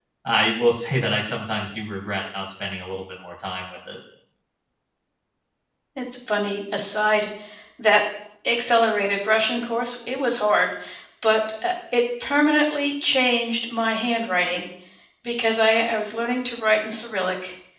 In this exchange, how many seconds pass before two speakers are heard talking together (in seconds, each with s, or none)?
none